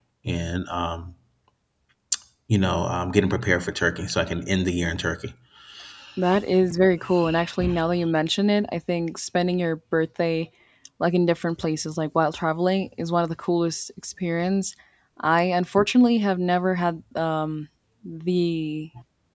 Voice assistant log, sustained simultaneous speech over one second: none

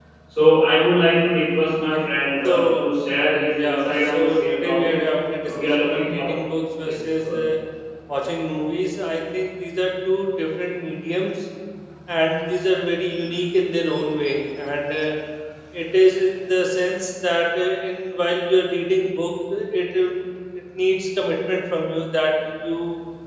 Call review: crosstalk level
present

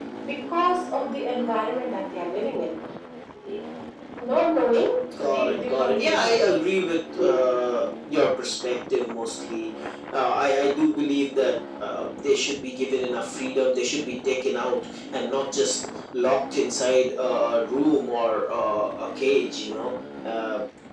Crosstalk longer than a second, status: present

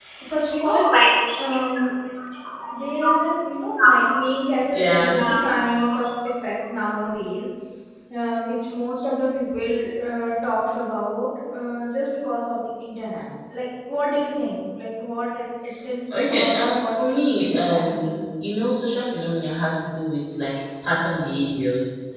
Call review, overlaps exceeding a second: present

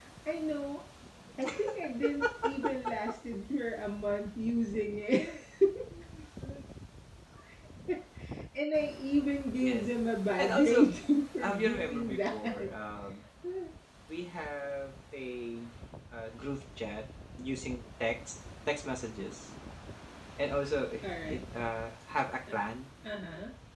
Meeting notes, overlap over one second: present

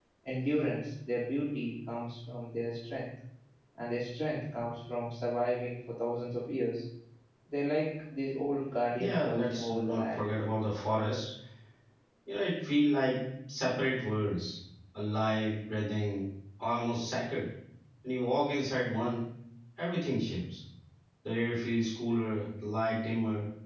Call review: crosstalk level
present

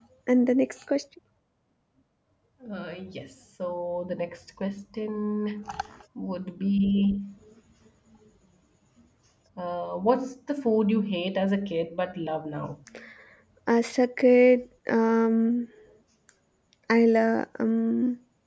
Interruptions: none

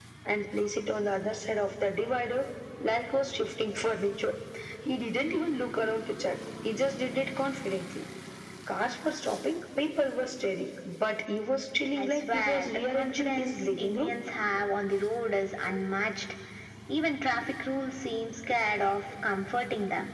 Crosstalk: present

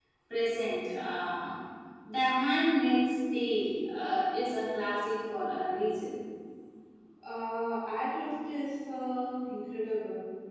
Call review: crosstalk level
none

